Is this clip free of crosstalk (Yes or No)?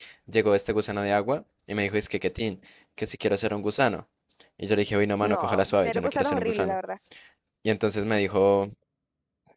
No